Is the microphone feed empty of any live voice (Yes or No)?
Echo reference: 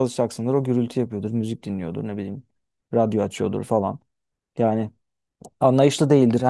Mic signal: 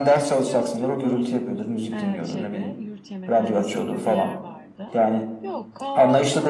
No